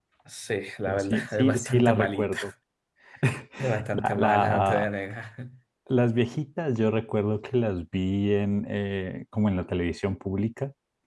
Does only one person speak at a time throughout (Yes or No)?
No